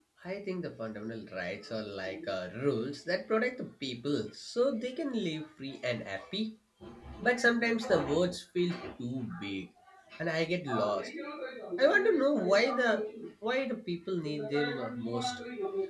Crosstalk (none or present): present